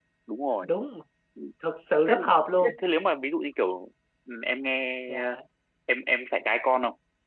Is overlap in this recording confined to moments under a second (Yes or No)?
Yes